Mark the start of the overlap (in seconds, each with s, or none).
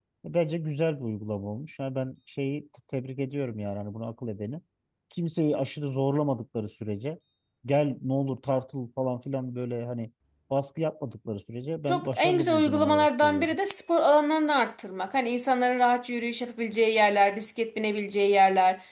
11.9 s